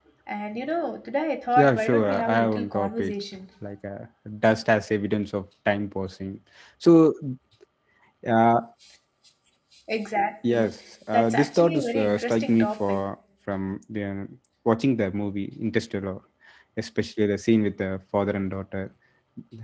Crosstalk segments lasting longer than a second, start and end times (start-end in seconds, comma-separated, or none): 1.6-3.1, 11.1-13.0